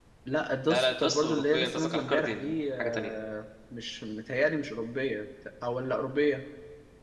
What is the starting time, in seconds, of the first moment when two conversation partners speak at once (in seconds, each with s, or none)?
0.7 s